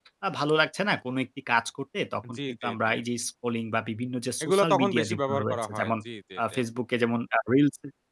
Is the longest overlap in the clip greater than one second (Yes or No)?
Yes